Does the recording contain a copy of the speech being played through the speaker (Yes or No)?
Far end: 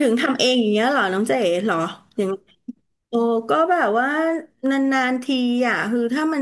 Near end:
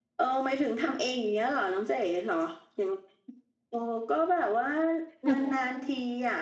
Yes